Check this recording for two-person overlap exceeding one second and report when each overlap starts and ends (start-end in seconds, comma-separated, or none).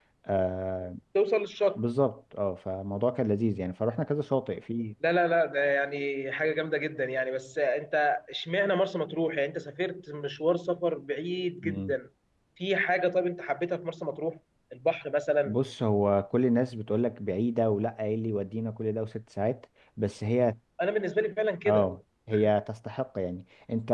none